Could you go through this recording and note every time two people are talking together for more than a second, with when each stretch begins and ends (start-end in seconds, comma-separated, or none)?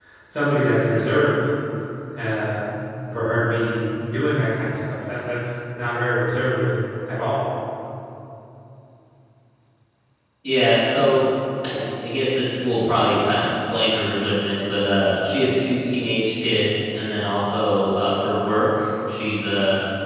none